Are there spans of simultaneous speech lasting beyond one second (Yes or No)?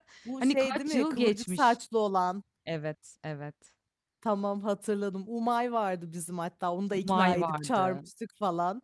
Yes